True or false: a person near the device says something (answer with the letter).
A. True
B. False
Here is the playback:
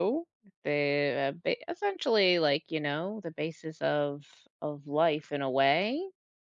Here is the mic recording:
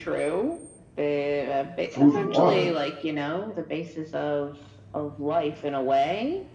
A